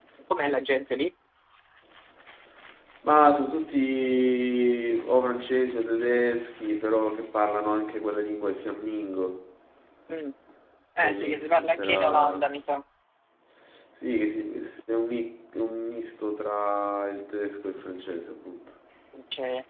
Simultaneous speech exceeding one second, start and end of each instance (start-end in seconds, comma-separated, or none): 11.0-12.5